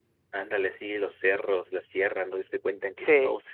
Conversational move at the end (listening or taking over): listening